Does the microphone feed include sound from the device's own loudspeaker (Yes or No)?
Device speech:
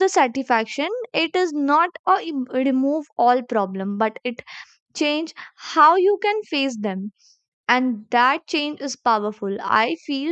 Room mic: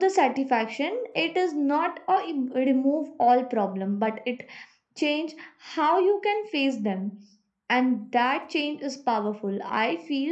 Yes